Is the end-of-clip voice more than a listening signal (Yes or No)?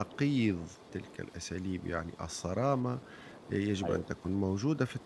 No